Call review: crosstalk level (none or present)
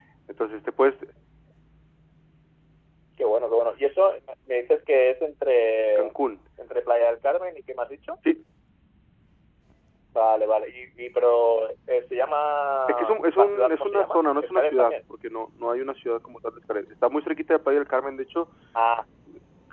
present